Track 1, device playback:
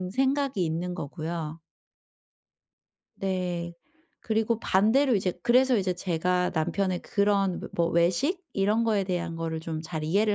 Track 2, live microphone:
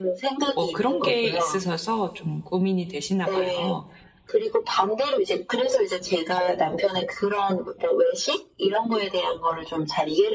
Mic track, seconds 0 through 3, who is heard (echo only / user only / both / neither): both